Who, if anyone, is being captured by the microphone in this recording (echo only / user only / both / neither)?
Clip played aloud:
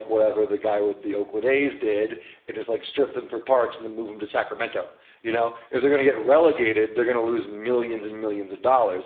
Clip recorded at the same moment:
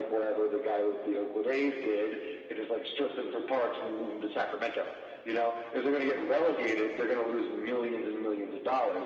echo only